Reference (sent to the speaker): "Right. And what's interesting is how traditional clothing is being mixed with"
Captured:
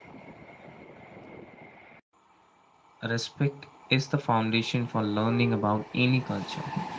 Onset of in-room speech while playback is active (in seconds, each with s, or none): 3.0 s